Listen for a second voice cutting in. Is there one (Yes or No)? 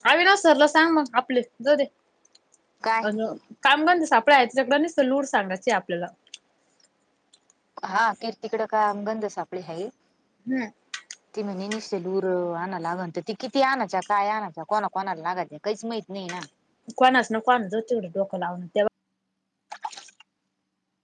No